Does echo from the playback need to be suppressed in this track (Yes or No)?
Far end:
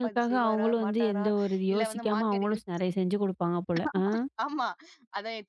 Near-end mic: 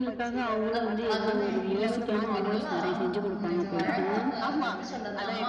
Yes